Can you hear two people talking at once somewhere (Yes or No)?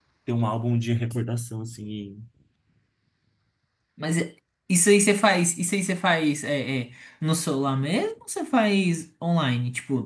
No